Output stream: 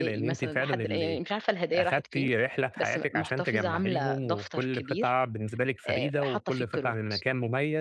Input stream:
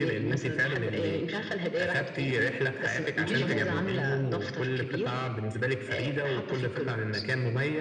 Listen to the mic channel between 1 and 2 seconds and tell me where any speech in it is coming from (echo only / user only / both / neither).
echo only